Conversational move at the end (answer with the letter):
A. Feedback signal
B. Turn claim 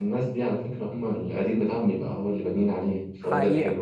B